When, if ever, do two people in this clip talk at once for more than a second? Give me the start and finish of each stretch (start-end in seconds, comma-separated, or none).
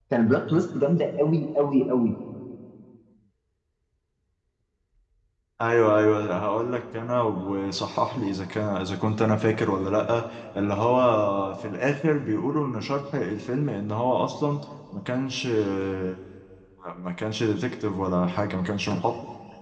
none